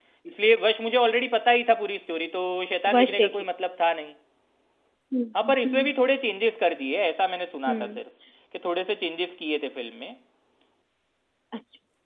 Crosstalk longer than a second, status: none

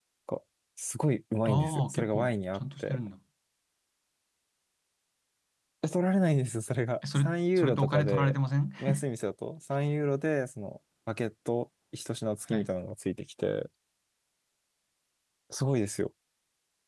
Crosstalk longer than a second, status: present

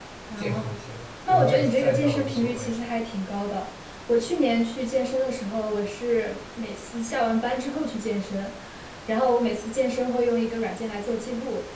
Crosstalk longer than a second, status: present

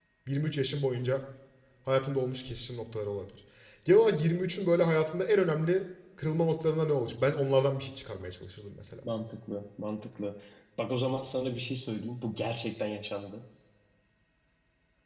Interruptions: none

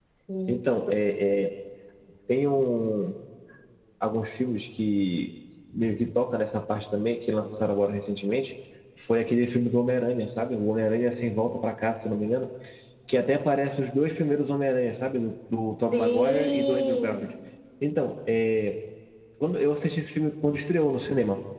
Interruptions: present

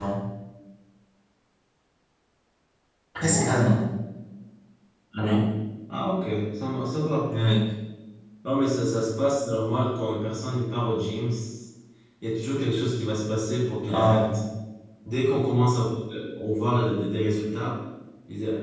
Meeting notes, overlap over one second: none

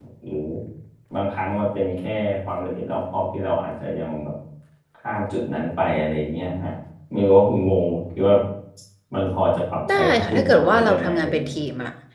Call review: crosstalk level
present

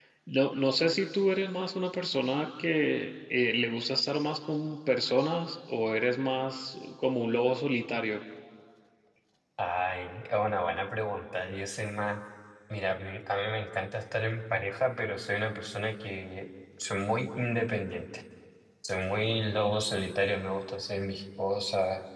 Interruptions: none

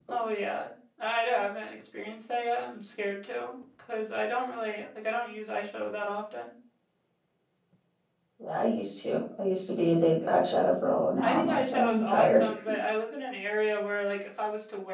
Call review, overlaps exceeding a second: present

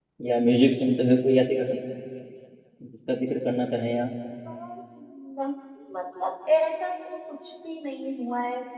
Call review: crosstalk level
none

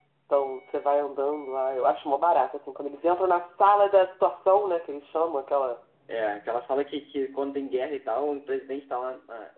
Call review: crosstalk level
none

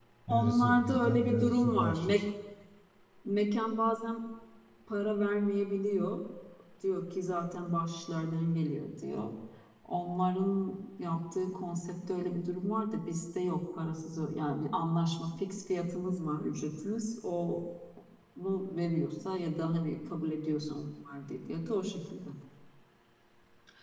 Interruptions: present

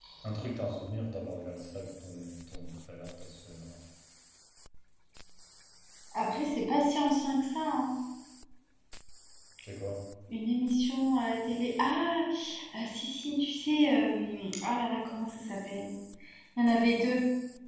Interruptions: none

